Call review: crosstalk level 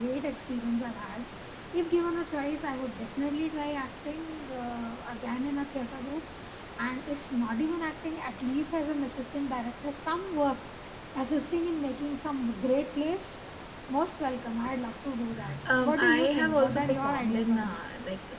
present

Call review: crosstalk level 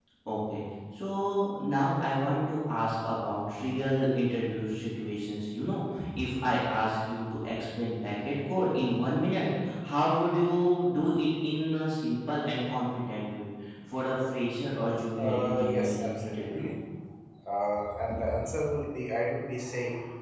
present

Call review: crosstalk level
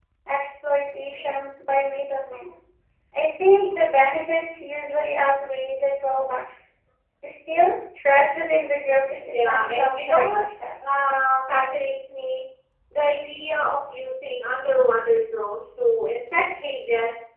present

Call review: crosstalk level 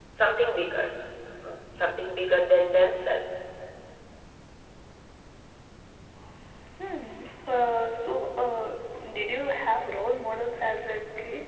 none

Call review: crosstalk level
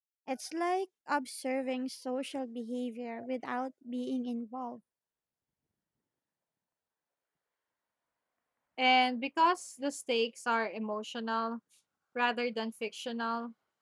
none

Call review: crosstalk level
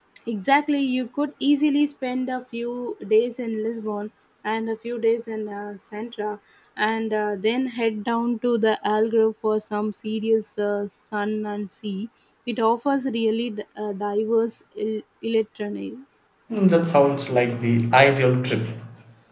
none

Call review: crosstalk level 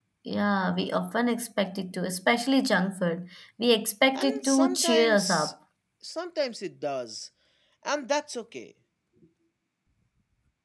present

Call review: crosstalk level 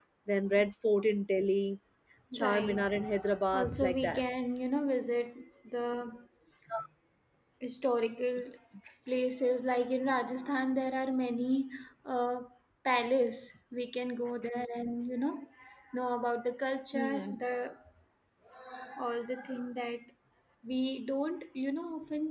present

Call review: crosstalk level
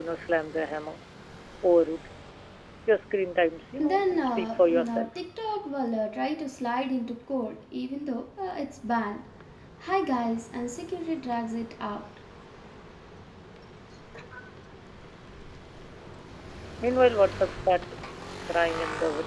present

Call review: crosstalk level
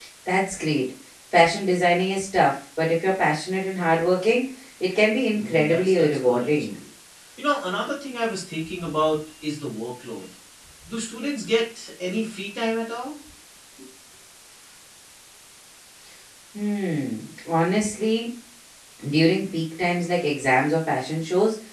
present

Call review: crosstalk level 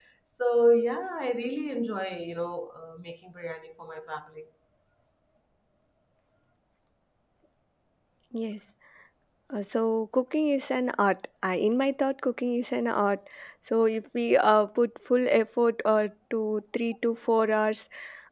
none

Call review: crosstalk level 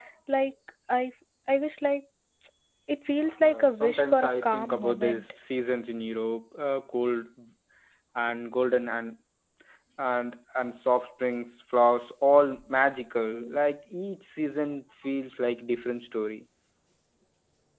present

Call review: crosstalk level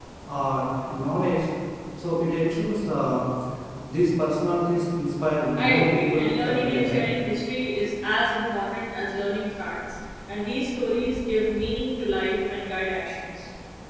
present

